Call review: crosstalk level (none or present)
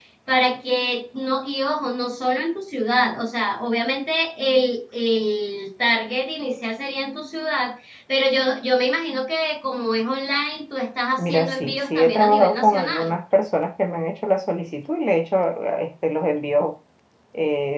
present